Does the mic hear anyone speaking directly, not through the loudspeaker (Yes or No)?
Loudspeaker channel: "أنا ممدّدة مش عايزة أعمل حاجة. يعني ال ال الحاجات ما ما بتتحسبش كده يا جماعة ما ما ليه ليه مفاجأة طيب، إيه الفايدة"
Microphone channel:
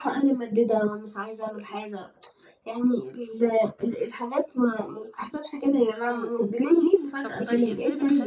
Yes